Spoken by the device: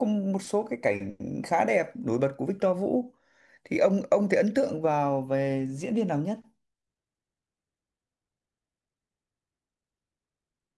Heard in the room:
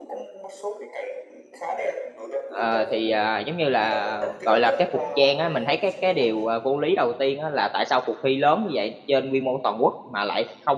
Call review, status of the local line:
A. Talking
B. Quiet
A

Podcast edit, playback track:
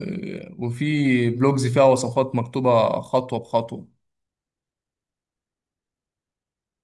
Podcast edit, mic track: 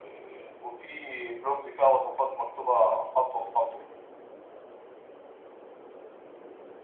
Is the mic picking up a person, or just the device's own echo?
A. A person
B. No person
B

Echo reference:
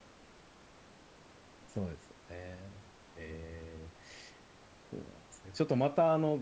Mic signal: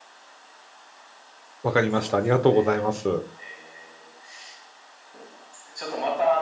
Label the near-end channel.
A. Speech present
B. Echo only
A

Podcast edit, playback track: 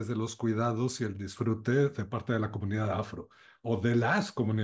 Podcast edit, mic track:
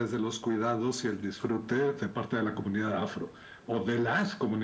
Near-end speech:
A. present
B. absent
B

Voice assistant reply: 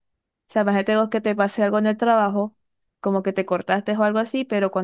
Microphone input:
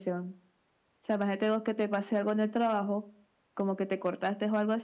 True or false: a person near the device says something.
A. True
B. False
B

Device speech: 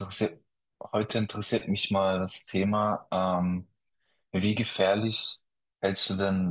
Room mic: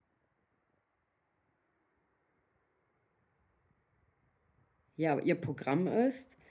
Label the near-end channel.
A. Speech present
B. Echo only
A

